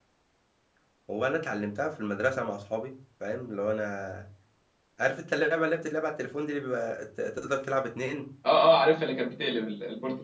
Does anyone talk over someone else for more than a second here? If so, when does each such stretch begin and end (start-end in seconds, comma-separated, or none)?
none